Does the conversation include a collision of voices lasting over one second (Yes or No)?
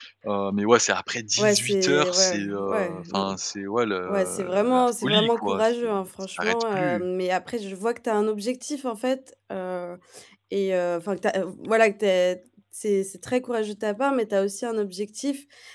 Yes